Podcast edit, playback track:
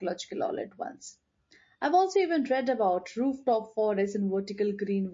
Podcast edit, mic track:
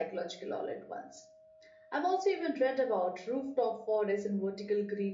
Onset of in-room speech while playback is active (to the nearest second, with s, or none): none